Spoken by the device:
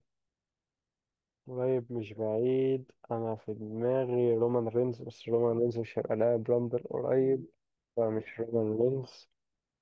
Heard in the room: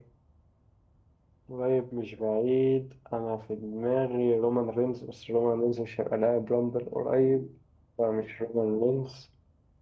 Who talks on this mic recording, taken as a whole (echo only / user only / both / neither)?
echo only